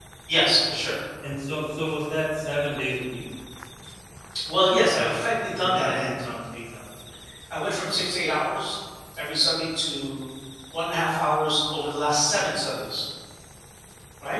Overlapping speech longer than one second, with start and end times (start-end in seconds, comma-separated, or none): 5.0-6.2